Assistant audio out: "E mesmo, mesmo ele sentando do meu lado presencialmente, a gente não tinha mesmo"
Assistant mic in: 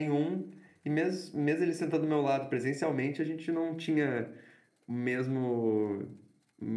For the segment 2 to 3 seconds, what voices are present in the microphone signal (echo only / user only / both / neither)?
echo only